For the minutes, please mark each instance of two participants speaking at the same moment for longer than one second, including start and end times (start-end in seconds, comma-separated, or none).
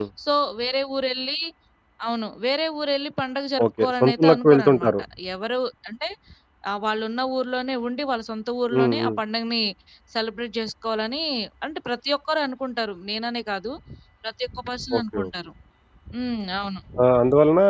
3.7-4.9